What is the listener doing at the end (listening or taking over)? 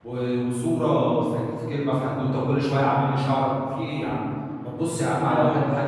taking over